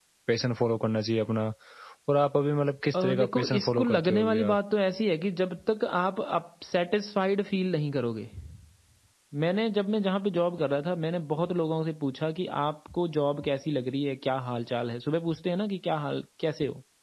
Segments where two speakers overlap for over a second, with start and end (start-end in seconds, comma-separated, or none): 3.0-4.6